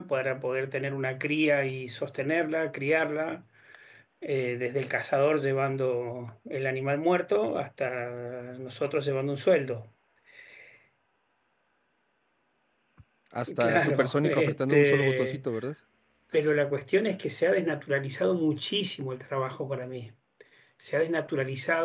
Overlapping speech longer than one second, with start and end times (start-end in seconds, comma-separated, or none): 13.6-15.5